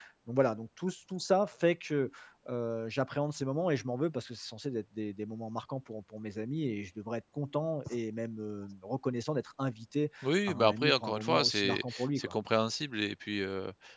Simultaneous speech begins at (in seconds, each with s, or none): 10.2 s